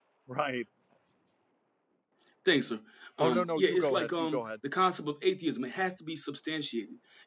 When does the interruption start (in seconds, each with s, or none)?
3.2 s